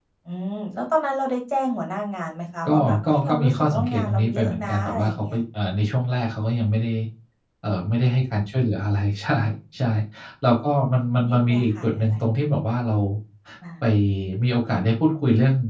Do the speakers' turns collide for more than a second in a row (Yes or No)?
Yes